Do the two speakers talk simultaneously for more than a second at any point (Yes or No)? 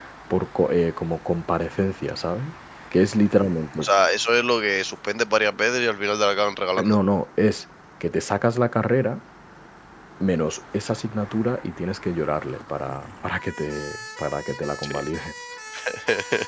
No